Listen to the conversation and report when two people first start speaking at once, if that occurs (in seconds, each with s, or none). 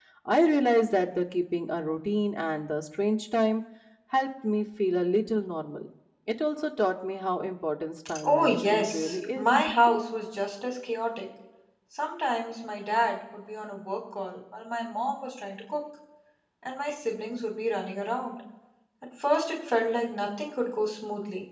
8.2 s